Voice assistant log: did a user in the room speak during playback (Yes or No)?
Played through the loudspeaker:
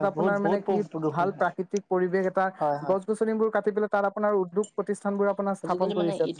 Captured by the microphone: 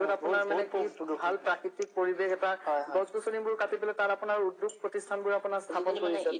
No